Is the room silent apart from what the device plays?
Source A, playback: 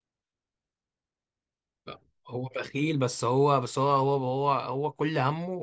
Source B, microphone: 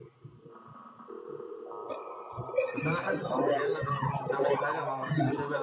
No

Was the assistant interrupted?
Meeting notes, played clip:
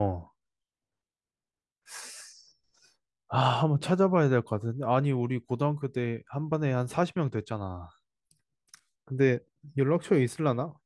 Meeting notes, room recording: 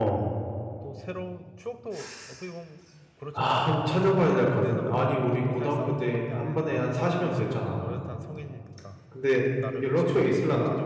Yes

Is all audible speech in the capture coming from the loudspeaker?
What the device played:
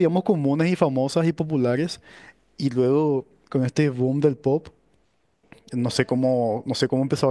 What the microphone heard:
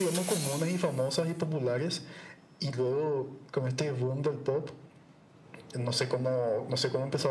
Yes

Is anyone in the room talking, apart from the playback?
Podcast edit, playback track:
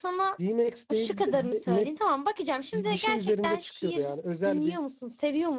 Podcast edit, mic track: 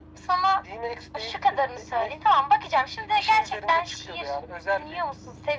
No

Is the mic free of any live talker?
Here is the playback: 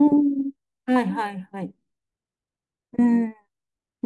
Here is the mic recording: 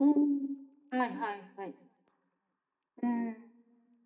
Yes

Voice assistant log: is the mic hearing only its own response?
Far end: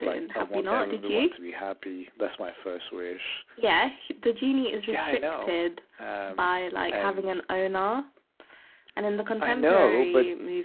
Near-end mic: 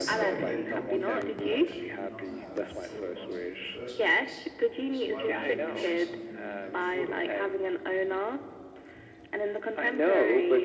No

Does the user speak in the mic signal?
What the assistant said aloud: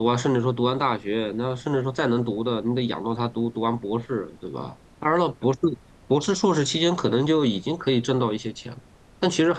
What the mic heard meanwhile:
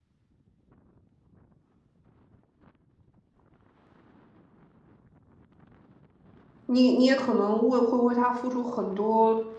Yes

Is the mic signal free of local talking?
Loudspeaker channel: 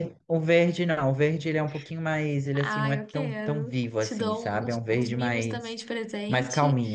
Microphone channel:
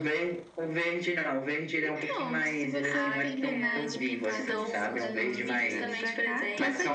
No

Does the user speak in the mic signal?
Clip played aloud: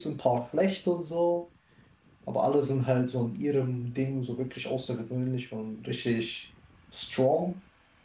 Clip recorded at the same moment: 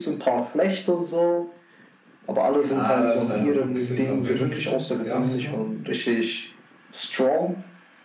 Yes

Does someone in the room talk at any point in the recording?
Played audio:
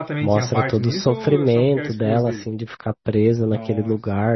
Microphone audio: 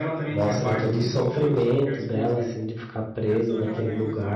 Yes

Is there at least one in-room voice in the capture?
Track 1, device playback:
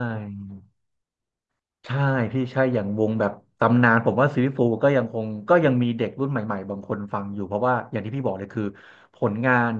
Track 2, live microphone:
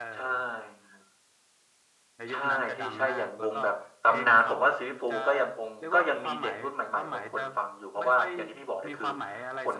Yes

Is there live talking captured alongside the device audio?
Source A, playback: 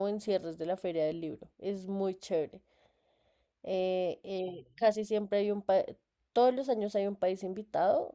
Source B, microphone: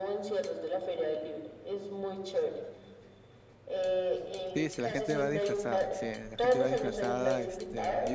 Yes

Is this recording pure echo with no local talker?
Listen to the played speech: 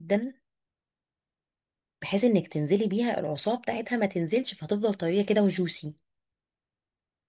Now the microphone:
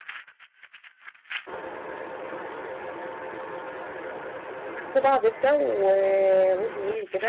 No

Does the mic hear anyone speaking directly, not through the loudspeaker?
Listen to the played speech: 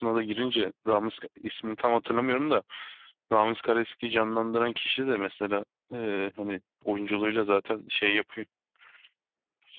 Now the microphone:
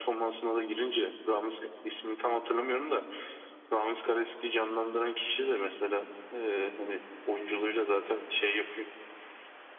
No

